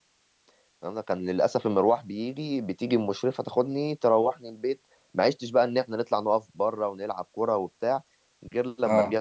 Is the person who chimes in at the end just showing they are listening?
Yes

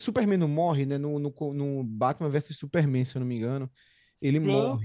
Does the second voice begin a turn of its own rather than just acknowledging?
Yes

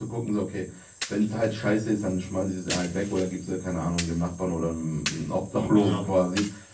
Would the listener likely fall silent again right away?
Yes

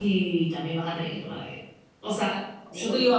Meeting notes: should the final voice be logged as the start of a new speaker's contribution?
No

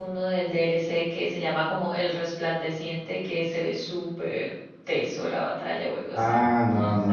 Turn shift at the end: Yes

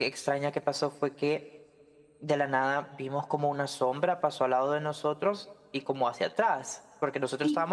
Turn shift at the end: No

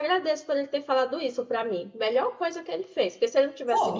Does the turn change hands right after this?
No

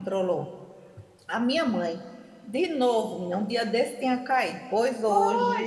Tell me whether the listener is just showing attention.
No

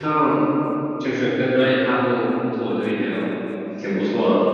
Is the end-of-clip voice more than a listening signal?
Yes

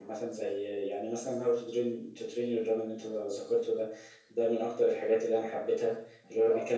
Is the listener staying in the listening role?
Yes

